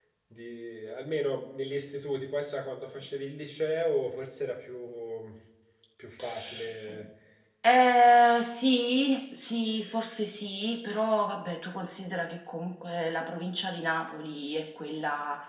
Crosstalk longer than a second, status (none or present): none